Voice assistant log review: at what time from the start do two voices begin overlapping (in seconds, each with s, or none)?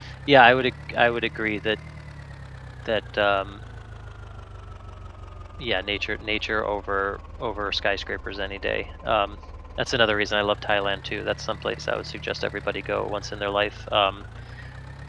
none